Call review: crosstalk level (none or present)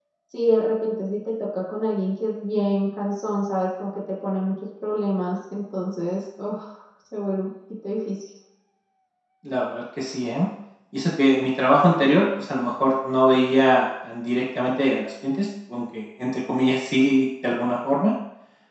none